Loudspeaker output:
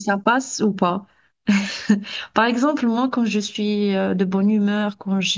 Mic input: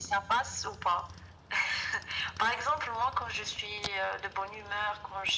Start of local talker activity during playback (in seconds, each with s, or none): none